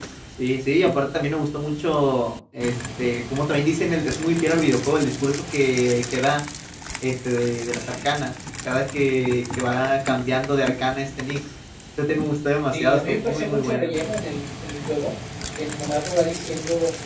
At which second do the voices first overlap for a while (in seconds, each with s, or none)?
12.7 s